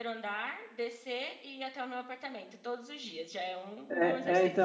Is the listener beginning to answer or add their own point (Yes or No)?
Yes